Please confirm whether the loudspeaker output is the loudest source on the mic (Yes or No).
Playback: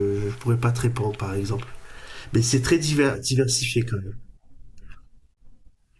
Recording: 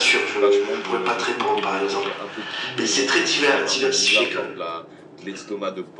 Yes